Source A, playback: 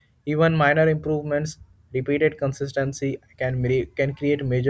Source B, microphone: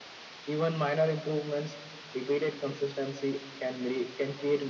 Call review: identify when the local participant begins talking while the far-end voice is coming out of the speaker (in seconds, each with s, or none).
none